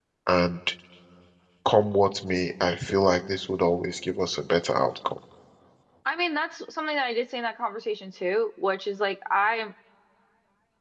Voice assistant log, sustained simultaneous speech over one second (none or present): none